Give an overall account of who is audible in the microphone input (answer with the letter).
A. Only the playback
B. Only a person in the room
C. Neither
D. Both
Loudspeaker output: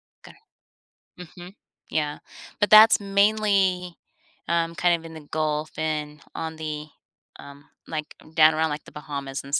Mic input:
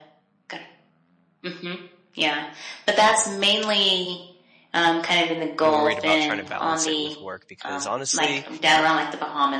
D